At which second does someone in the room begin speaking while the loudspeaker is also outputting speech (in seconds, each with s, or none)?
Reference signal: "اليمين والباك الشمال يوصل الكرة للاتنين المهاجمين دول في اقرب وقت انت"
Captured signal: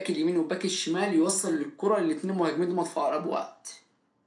none